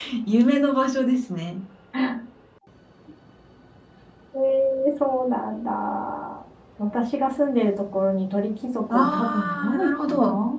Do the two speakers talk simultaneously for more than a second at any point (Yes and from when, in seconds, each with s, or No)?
Yes, from 8.9 s